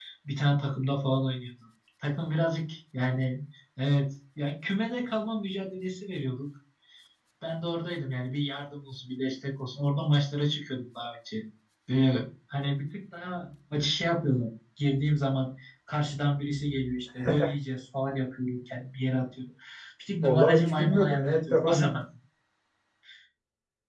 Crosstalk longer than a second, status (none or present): present